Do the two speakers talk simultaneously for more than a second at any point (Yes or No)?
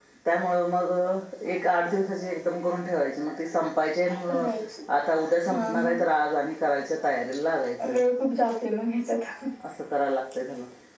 No